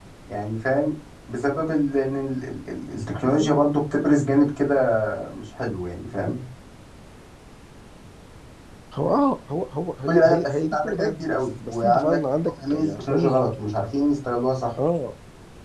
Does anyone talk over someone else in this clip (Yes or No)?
Yes